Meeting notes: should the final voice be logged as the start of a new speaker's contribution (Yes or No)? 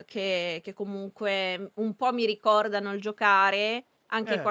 No